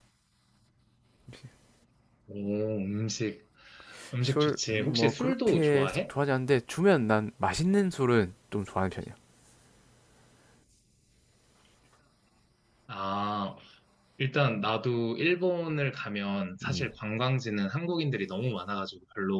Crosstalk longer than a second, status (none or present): present